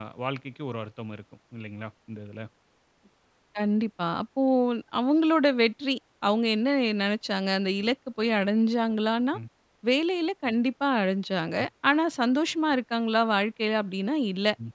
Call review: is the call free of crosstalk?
Yes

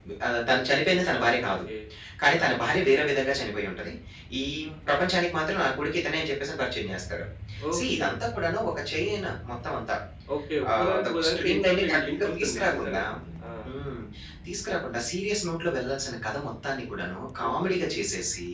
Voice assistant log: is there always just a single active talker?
No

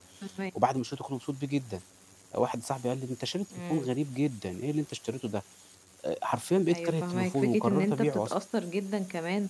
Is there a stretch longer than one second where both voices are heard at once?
Yes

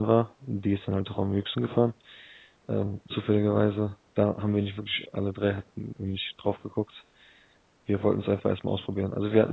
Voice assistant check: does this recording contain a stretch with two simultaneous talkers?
No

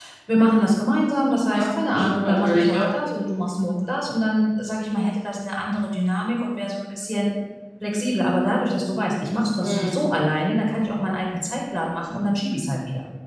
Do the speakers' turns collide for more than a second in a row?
Yes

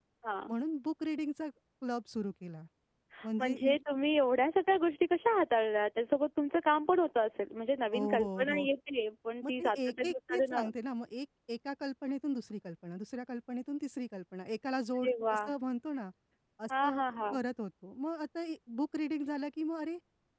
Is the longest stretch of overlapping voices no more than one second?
No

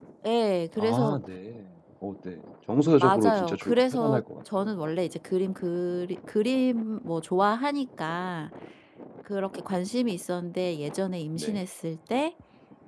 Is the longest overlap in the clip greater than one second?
Yes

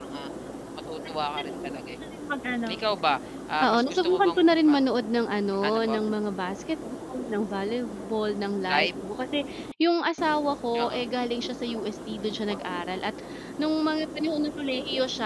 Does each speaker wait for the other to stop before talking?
No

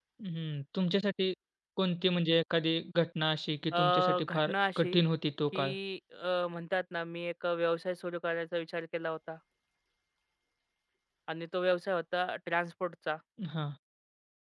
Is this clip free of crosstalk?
No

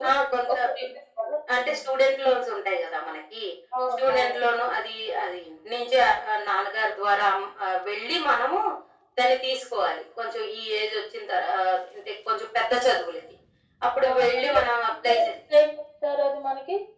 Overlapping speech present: Yes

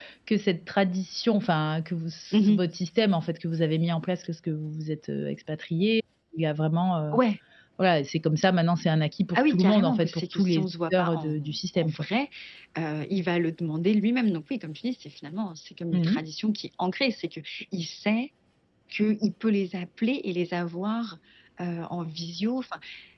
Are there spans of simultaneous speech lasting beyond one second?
Yes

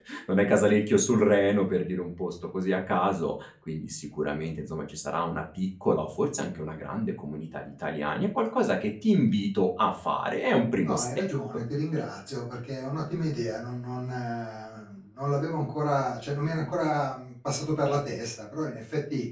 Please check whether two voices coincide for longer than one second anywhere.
No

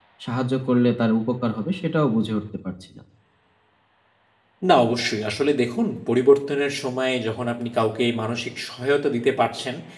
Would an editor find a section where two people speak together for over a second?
No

